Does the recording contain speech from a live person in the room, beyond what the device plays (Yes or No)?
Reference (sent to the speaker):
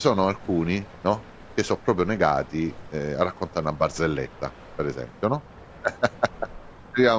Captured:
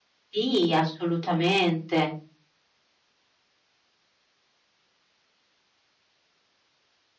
Yes